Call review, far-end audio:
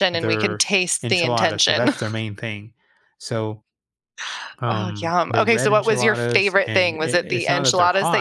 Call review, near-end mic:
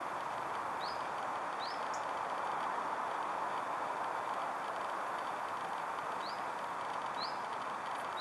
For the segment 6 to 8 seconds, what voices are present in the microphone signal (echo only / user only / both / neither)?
neither